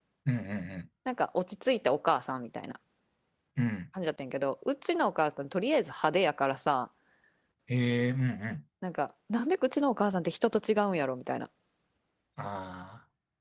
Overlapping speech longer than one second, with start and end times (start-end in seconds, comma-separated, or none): none